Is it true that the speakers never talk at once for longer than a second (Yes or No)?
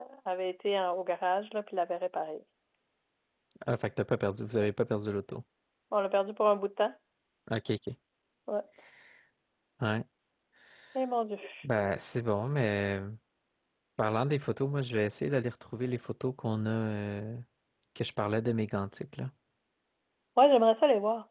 Yes